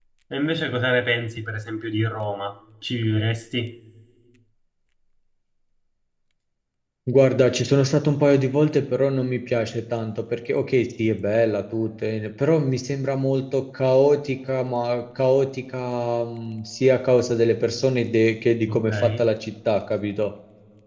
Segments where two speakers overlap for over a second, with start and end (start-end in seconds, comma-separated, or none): none